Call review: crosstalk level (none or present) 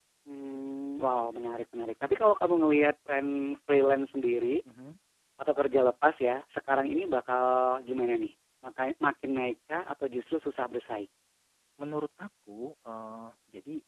none